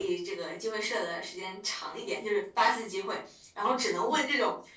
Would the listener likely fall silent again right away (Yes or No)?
Yes